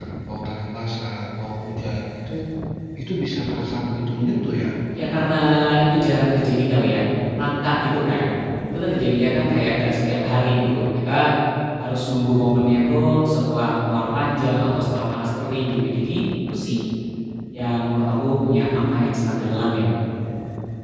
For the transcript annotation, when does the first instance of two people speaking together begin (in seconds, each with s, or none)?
none